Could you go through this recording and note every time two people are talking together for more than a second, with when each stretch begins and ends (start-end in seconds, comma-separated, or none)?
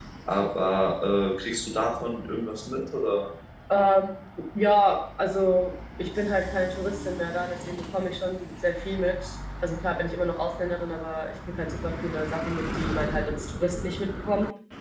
none